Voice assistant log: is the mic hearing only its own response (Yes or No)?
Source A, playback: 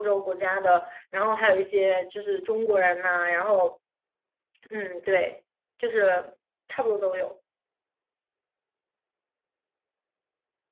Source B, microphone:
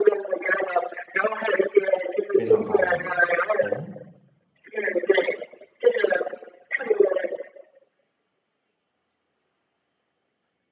No